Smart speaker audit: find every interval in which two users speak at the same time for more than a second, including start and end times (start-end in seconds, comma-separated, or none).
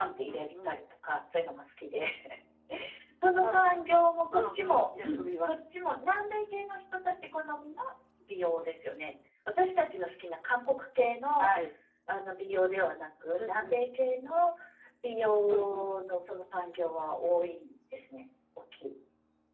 4.3-5.5